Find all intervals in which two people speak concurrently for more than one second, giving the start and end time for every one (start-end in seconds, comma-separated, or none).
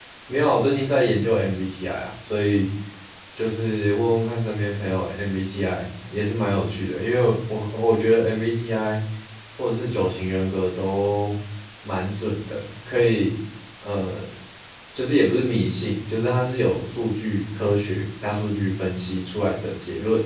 none